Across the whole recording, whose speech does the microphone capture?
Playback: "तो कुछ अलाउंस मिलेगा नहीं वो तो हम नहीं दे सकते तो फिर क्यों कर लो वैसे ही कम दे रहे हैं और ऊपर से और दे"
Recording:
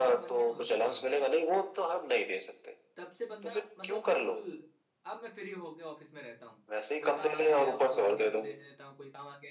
both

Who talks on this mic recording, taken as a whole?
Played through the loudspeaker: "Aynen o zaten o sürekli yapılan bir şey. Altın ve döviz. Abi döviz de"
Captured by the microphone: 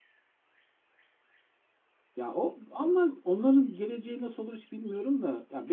user only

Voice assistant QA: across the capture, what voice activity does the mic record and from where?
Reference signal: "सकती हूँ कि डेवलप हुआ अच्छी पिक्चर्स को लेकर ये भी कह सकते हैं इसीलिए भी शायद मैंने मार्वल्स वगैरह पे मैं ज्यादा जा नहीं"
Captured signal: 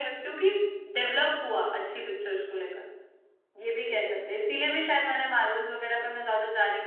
echo only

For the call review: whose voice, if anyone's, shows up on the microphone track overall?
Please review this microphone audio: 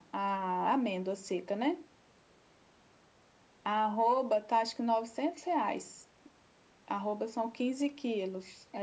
echo only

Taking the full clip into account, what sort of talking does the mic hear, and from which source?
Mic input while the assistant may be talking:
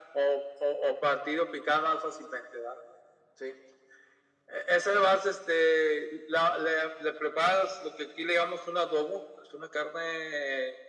echo only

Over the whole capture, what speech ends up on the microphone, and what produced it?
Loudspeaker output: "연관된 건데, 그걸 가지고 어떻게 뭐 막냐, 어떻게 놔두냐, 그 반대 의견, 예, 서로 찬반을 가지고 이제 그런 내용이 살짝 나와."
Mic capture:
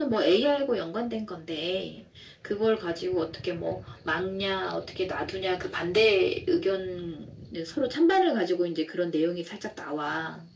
echo only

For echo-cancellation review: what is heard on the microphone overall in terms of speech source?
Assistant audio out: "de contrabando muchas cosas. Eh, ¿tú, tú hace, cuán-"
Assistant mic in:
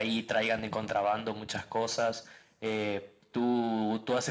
echo only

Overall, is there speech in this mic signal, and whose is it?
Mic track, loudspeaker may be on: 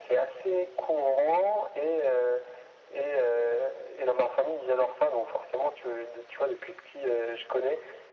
echo only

